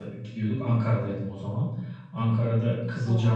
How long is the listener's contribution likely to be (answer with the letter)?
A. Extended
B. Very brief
B